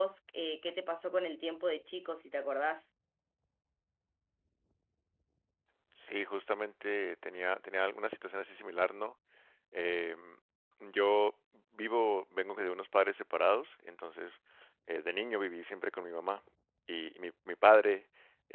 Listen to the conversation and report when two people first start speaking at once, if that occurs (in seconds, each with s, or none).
none